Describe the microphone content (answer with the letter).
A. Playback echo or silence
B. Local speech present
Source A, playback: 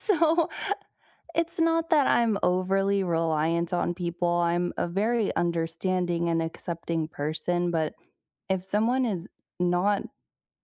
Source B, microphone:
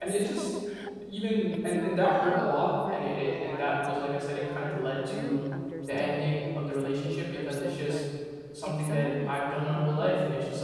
B